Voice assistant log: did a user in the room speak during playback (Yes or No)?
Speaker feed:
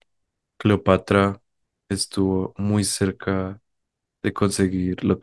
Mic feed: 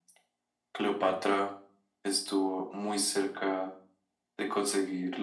No